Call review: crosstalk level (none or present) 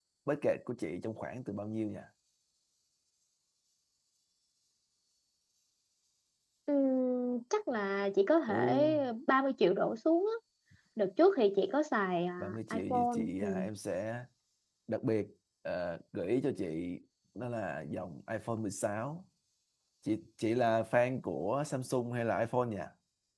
present